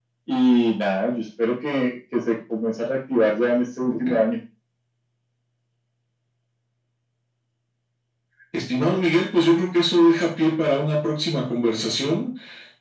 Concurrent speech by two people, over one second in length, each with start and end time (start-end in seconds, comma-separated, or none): none